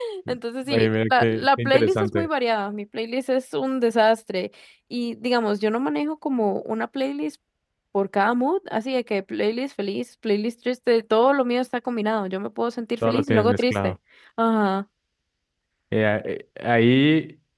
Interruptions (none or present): present